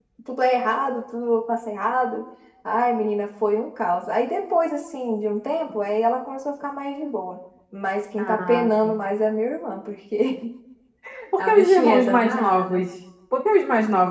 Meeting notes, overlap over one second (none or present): present